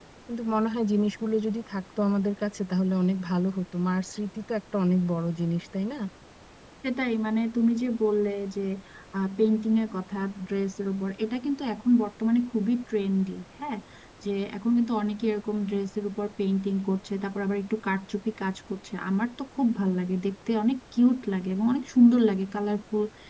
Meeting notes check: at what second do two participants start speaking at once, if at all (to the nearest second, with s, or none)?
none